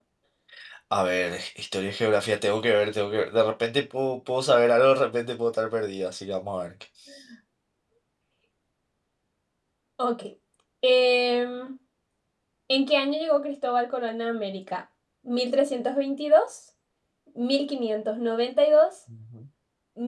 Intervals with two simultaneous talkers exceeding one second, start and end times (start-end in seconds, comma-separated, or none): none